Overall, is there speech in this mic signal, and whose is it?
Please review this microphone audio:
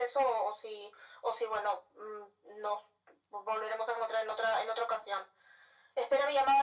echo only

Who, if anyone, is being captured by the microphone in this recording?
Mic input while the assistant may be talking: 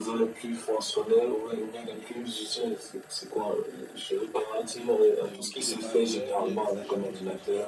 both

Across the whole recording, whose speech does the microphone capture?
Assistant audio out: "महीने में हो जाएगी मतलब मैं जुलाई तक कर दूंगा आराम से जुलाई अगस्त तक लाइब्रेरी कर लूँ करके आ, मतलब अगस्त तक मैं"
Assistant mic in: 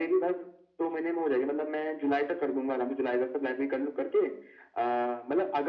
echo only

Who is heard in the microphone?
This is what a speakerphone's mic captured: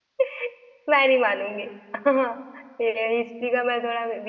user only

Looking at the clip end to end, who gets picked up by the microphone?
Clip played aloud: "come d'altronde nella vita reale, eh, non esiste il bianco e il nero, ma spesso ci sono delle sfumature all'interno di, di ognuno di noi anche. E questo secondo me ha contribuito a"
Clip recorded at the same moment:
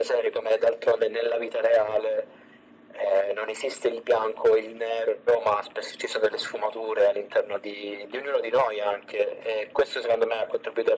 echo only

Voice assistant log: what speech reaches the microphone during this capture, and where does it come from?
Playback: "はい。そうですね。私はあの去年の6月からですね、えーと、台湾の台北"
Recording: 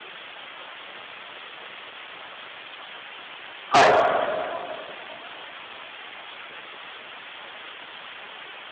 user only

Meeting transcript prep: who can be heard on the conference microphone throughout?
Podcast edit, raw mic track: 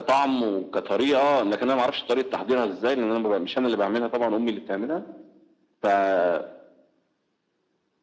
echo only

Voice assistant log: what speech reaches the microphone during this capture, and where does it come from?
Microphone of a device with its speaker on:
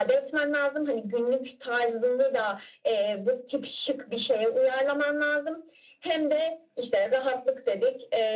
echo only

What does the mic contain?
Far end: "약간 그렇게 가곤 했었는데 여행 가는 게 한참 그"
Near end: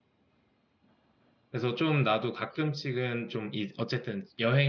user only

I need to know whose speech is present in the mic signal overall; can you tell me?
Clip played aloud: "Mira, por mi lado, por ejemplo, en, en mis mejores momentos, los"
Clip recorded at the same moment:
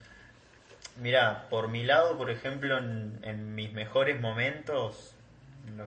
echo only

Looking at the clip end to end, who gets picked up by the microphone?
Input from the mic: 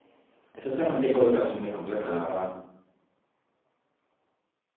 user only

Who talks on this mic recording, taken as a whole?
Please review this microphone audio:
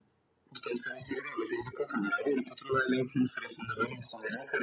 echo only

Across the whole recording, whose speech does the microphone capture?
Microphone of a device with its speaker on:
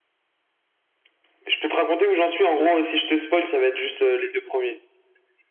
echo only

